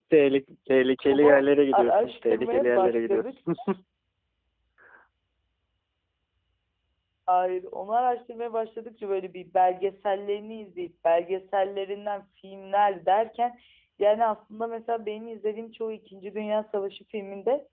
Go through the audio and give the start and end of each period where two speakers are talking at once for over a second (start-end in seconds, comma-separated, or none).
1.7-3.3